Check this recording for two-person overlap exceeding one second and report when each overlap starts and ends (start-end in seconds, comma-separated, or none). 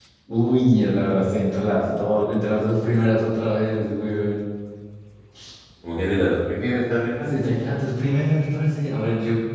none